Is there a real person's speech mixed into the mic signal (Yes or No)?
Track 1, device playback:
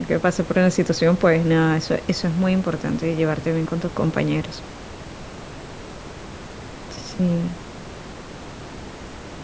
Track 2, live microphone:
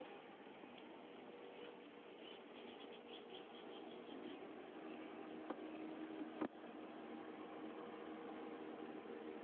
No